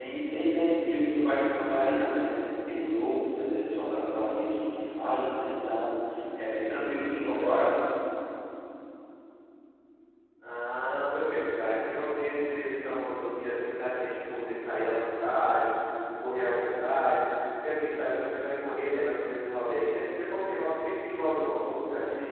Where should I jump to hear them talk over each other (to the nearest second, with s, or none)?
none